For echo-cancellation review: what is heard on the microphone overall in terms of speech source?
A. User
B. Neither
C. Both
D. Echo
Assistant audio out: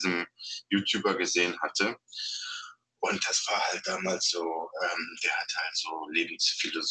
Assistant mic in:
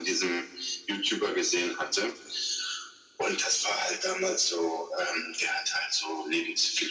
D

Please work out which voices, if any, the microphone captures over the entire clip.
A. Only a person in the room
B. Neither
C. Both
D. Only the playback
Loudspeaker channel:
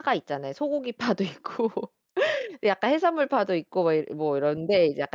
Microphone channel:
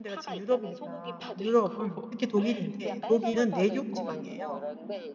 C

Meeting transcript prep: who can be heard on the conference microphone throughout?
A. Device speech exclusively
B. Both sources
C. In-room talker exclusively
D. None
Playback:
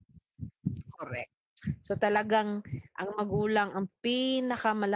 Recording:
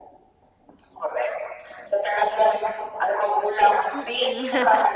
B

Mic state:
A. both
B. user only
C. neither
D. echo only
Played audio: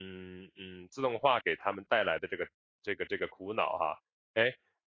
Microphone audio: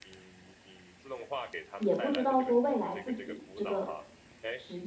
A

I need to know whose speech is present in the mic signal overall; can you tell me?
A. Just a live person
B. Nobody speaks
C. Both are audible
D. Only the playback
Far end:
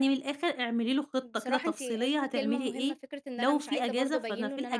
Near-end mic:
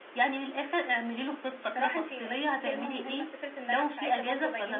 D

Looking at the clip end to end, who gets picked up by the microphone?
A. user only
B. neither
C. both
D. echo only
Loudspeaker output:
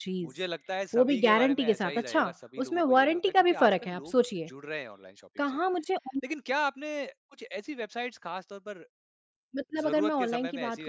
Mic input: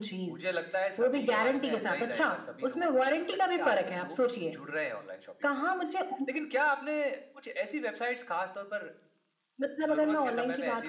D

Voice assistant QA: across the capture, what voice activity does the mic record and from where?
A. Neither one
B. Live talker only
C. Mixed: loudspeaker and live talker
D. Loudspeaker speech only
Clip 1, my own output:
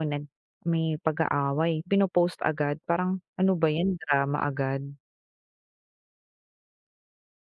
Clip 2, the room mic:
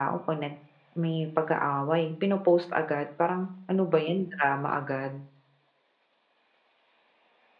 D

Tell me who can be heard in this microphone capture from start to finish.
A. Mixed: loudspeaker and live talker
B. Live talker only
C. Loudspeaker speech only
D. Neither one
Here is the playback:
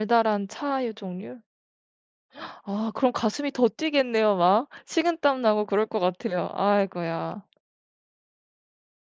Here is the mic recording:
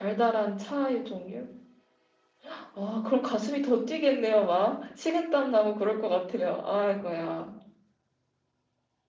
C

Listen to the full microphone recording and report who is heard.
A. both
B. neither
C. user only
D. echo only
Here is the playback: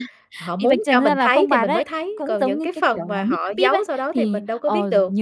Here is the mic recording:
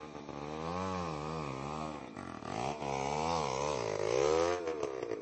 B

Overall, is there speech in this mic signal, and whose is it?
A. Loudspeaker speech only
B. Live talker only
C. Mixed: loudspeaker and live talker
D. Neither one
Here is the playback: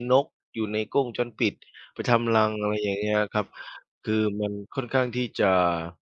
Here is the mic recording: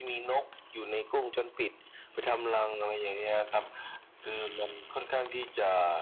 A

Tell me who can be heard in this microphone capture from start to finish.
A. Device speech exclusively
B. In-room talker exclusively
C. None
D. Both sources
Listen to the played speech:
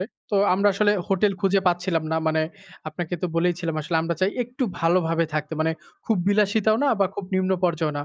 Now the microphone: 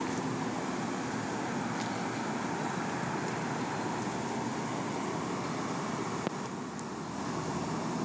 C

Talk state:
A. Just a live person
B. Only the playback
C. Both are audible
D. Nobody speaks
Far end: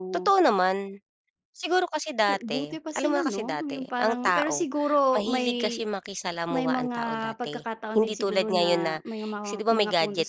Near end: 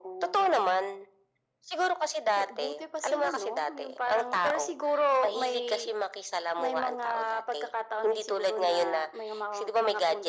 B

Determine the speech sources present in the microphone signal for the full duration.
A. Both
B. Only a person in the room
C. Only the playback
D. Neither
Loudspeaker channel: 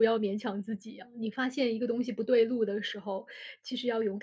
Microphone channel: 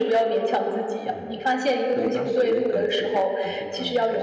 A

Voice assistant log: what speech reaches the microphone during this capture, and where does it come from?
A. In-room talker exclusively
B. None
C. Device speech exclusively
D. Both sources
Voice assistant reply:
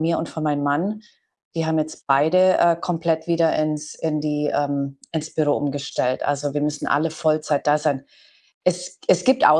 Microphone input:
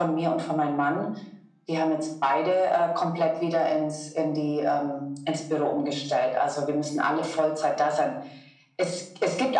C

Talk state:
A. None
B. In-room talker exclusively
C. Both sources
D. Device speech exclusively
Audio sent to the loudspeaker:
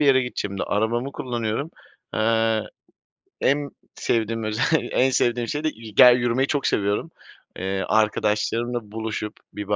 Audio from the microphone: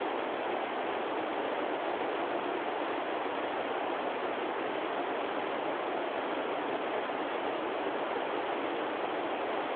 A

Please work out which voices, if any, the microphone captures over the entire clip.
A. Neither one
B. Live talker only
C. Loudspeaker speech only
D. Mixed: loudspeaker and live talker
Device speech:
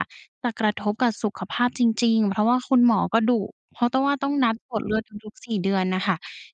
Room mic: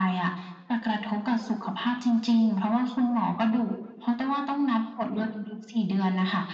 C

